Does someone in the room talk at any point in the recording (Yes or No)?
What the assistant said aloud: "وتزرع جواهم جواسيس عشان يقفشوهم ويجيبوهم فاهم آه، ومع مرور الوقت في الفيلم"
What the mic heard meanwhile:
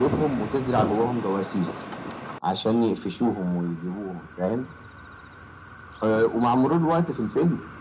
No